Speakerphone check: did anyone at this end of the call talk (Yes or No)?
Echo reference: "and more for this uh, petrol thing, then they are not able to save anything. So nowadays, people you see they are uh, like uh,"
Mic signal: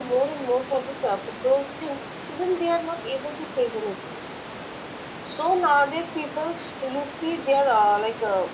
No